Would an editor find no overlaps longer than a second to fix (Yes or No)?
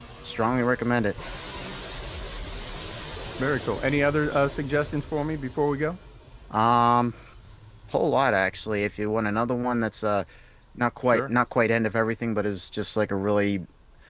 Yes